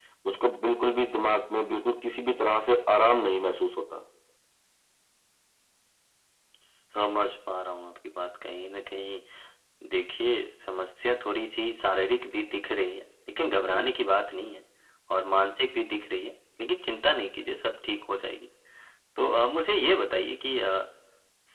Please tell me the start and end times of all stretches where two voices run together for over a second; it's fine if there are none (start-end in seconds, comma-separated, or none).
none